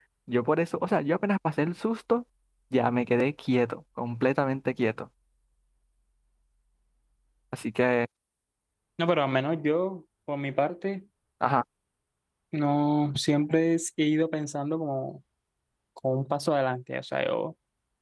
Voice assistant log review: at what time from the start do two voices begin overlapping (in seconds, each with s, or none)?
none